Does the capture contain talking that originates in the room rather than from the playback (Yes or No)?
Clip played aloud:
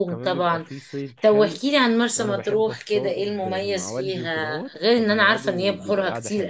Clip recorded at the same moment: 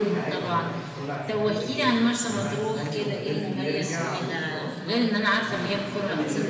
Yes